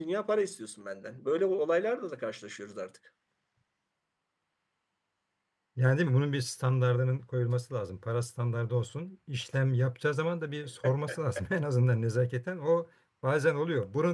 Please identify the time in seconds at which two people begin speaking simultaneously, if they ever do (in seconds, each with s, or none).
none